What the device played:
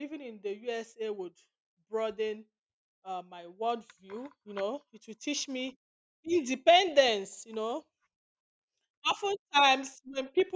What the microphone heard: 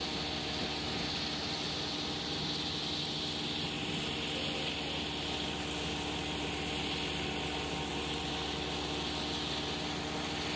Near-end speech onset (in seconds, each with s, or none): none